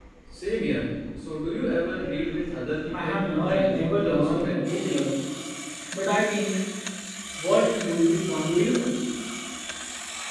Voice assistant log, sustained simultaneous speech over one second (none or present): present